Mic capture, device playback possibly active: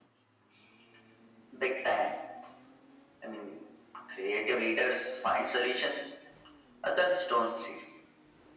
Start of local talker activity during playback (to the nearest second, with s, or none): none